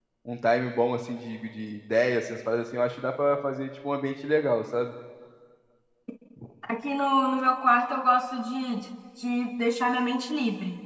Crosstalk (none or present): none